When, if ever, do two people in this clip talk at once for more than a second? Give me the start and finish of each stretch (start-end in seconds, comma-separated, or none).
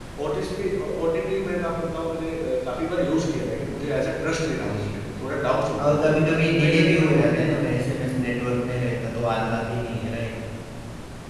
5.8-7.7